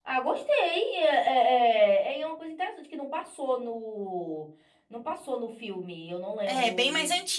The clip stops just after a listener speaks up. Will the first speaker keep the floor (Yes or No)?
No